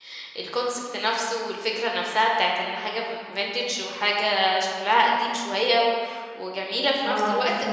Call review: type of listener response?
taking over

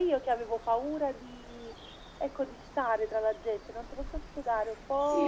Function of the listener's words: taking over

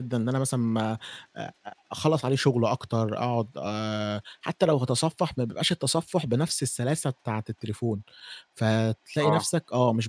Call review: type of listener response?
listening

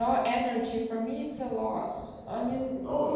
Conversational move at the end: listening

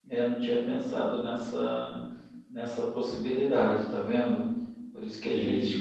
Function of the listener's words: listening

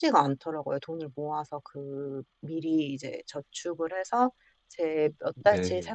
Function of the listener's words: listening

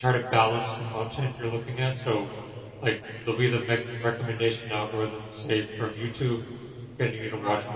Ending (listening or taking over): listening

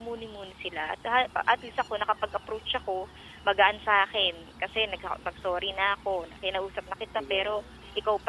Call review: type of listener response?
listening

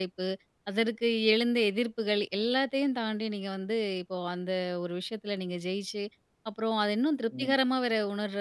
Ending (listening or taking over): listening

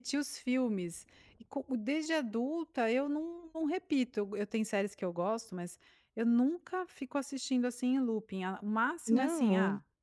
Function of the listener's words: listening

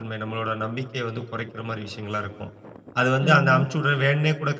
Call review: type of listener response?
listening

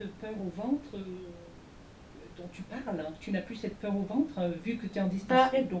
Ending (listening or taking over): listening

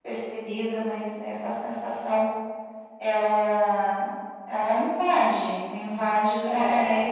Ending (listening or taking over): listening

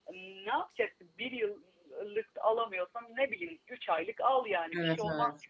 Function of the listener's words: taking over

